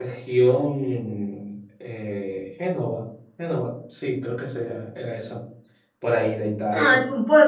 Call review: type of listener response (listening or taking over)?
taking over